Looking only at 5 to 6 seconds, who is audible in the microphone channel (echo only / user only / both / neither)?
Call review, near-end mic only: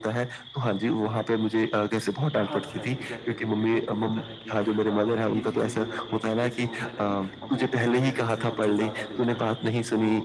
both